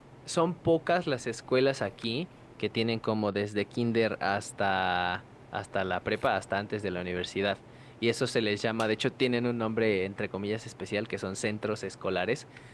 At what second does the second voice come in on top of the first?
none

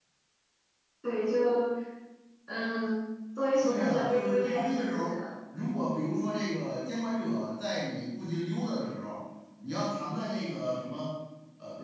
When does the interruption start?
3.6 s

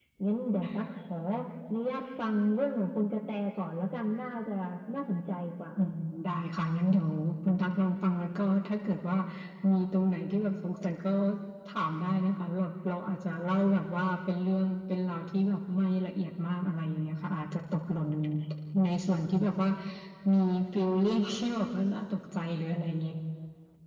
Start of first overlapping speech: none

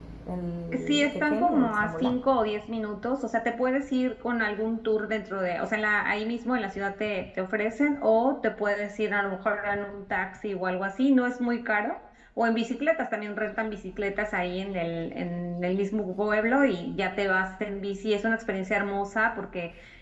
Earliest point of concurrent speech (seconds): 0.9 s

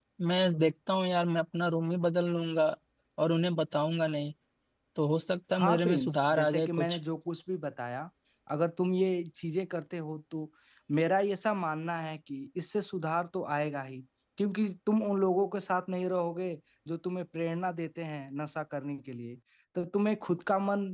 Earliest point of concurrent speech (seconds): 5.5 s

